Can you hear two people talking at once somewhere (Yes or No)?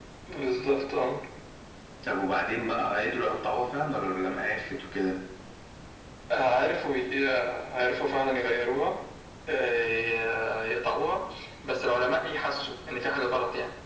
No